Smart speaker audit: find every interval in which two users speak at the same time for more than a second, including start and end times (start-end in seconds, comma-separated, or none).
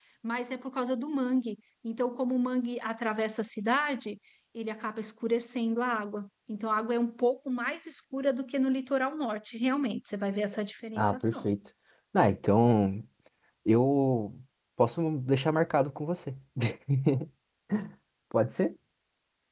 none